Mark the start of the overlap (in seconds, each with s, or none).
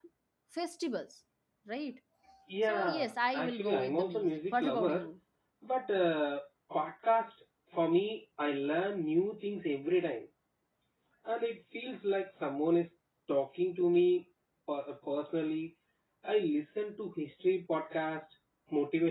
2.7 s